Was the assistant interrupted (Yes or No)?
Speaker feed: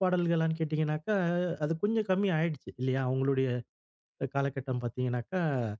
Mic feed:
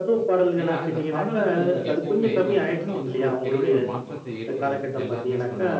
Yes